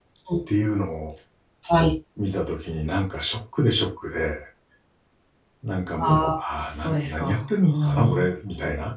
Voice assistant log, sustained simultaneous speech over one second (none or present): present